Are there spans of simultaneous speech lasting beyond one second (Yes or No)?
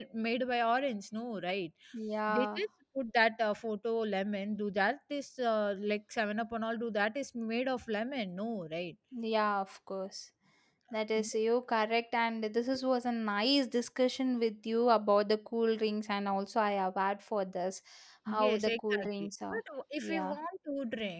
Yes